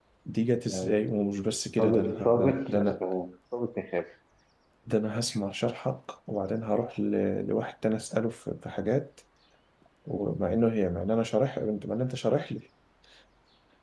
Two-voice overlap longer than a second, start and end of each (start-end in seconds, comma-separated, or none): 1.8-3.0